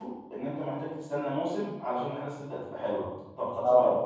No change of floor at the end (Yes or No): Yes